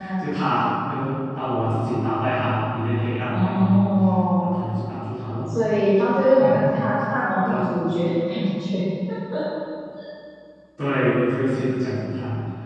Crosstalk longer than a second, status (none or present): none